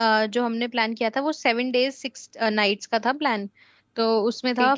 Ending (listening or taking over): listening